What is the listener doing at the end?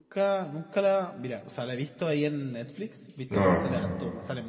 listening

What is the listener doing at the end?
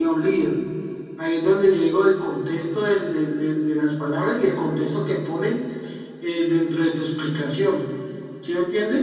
taking over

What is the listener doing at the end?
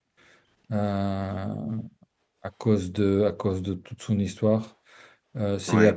listening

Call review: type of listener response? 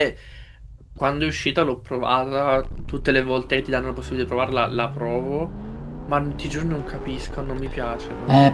taking over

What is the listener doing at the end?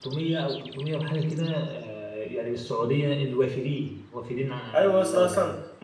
taking over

